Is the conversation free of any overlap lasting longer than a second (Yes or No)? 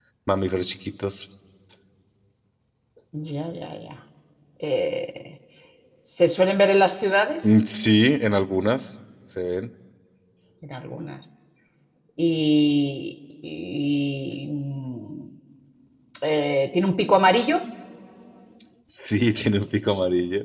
Yes